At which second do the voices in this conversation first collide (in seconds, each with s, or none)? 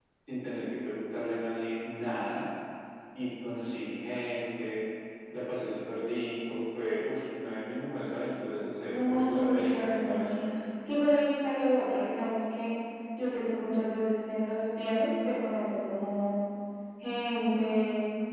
8.8 s